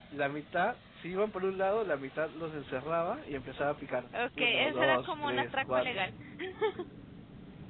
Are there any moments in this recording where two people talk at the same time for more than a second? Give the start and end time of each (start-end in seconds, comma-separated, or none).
4.4-6.0